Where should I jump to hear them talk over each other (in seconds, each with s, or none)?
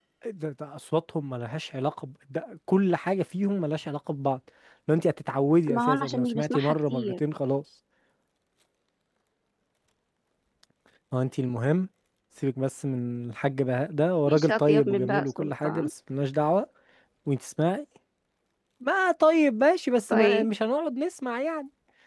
5.7 s